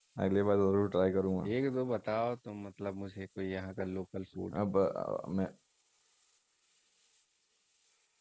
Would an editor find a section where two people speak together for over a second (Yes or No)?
No